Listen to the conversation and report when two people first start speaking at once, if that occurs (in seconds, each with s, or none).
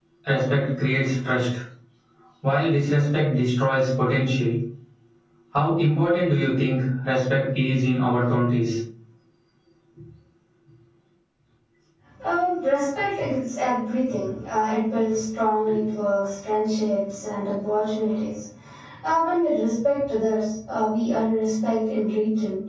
none